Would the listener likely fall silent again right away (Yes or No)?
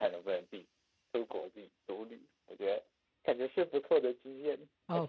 No